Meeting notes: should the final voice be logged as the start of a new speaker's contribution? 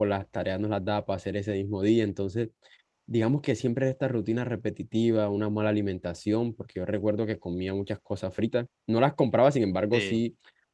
No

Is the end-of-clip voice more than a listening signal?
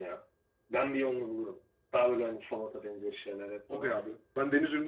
Yes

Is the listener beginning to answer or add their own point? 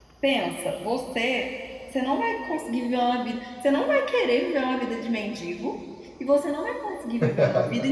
No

